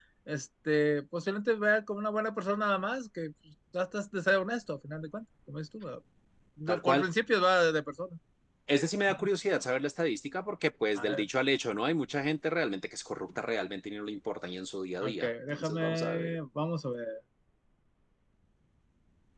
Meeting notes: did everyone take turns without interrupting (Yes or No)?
No